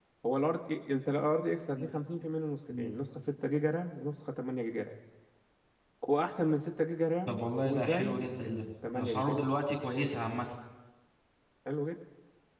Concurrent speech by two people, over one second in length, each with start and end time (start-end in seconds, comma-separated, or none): 7.3-9.5